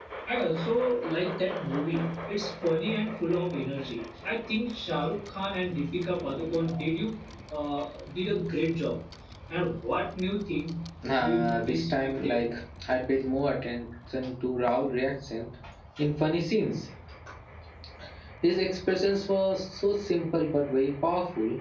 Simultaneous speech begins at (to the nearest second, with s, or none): 11 s